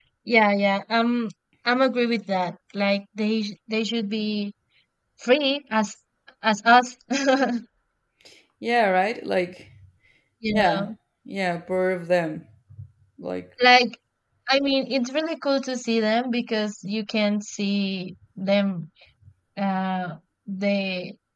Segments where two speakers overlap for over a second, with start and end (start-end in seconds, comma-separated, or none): none